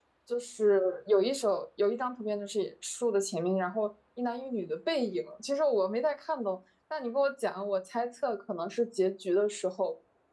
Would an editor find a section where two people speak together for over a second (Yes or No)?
No